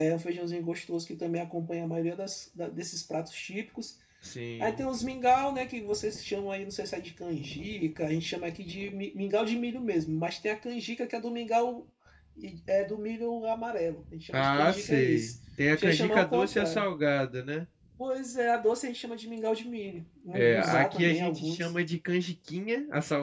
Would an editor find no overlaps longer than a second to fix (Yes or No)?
No